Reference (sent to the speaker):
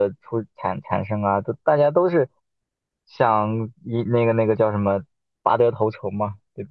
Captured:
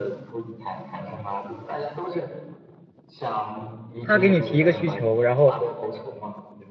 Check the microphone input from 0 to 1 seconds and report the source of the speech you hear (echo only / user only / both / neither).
echo only